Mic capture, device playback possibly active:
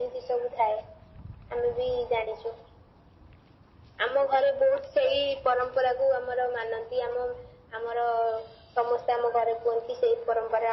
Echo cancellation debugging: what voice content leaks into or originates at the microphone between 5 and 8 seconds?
echo only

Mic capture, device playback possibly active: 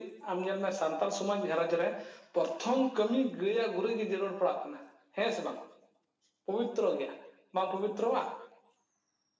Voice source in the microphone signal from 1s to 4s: echo only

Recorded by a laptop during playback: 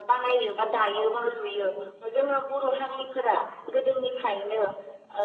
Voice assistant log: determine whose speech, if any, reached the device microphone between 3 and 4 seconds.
echo only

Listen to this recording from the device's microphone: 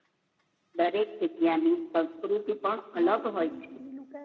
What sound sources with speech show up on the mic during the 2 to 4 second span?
both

